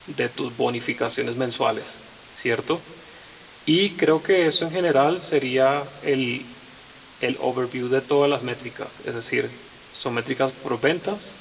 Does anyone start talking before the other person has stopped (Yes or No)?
No